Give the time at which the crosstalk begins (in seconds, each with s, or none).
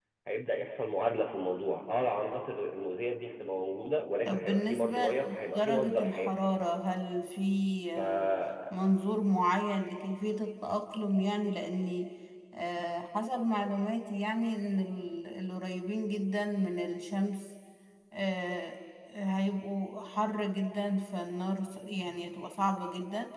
4.2 s